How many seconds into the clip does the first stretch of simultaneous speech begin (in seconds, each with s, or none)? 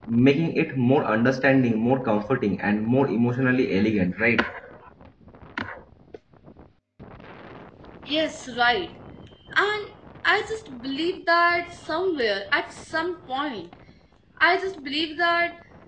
none